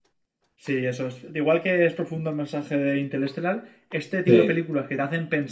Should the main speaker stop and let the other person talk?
No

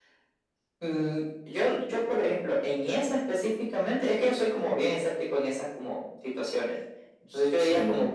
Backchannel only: Yes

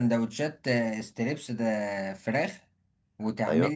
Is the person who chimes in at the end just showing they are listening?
Yes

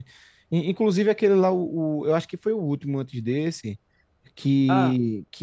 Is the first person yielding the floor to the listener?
No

